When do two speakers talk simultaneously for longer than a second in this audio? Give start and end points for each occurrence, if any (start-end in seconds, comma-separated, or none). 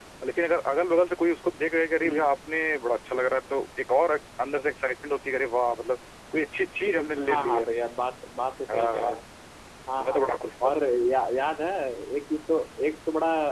none